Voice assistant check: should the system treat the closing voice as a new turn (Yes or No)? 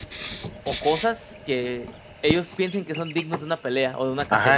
Yes